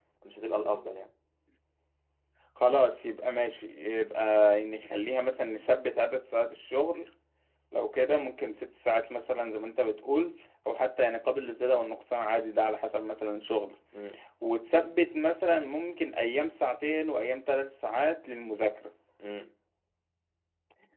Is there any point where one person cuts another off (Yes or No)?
No